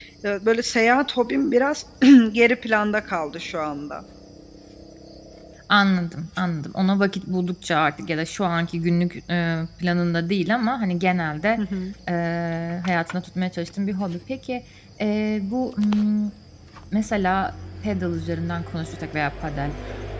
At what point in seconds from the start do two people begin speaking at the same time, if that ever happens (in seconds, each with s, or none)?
none